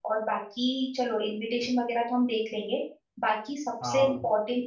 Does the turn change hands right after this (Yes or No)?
No